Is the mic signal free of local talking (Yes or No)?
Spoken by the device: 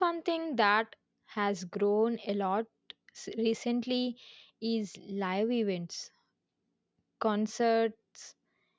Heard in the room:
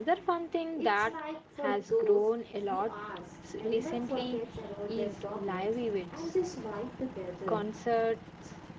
No